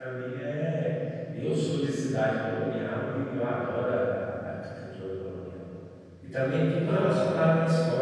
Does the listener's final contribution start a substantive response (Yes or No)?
No